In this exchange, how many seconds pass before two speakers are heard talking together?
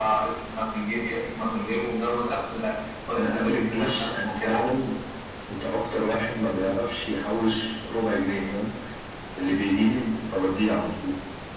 3.1 s

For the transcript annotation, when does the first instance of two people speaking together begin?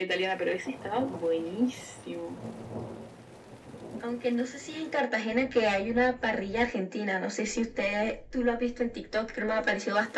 none

